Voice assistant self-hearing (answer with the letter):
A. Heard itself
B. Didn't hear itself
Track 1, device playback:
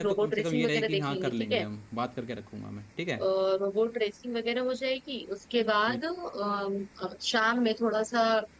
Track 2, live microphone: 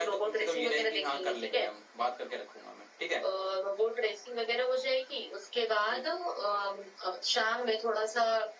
A